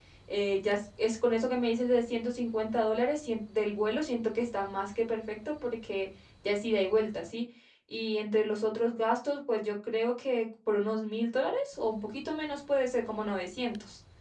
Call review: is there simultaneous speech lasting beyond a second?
No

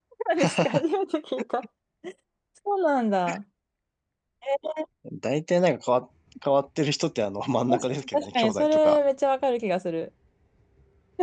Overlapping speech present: Yes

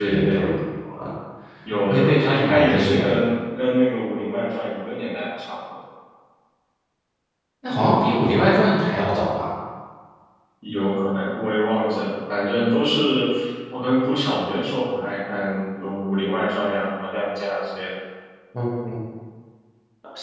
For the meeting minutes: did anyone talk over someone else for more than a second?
Yes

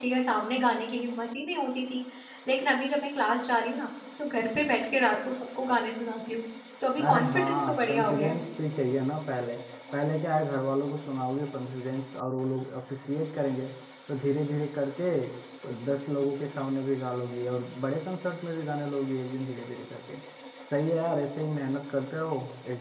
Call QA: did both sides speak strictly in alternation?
No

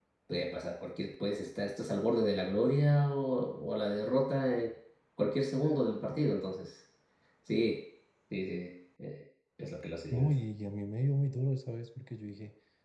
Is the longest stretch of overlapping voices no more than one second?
Yes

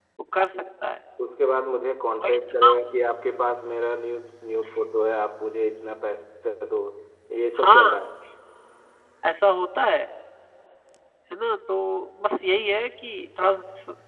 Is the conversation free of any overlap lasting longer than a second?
Yes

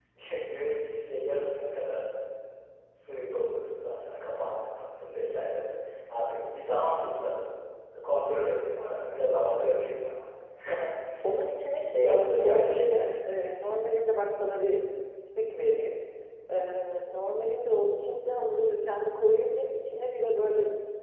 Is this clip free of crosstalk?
No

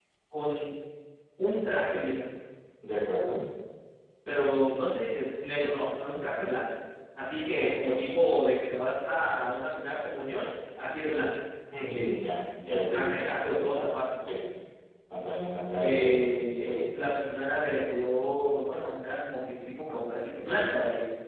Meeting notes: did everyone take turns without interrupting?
No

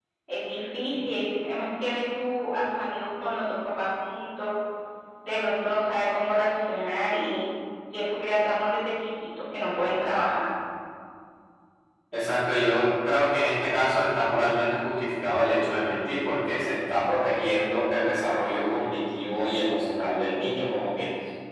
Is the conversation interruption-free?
Yes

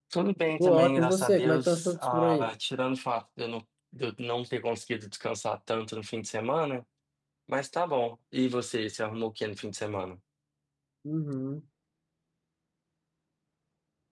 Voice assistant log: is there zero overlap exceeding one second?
No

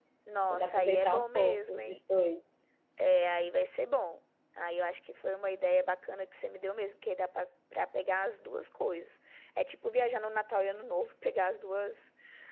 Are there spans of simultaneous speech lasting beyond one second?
Yes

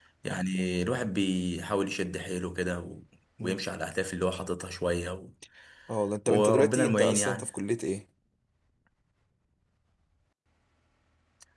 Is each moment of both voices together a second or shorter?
No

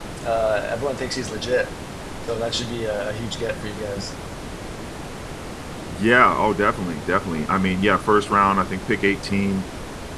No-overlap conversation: Yes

